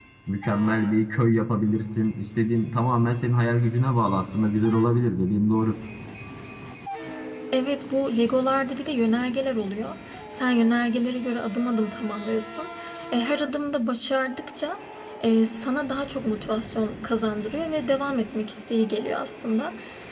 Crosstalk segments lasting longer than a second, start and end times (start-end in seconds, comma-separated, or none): none